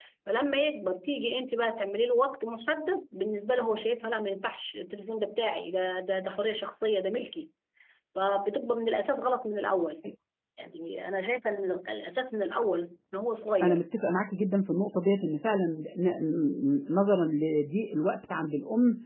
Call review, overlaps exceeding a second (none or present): none